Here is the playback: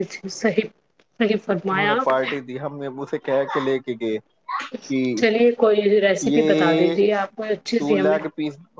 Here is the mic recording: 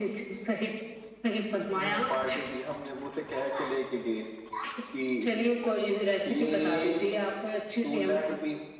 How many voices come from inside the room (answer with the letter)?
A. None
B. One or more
A